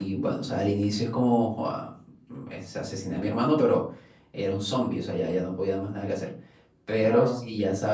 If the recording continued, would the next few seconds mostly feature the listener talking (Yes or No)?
No